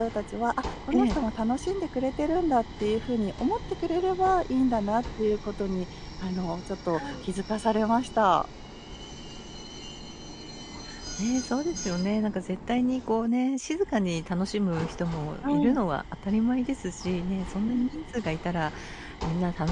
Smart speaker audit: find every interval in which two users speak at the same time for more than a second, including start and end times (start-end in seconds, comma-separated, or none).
none